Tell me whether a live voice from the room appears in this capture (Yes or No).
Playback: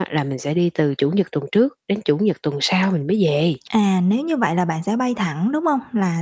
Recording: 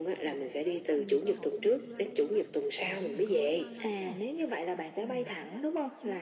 Yes